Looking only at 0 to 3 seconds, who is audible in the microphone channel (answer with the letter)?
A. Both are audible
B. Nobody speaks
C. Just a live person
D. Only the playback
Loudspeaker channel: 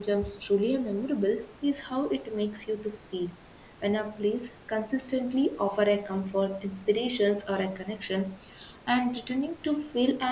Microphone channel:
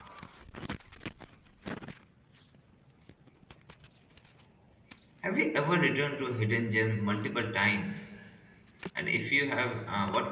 B